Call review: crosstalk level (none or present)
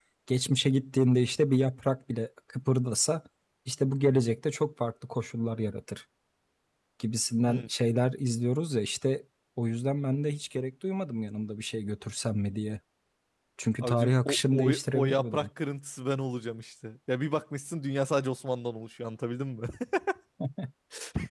present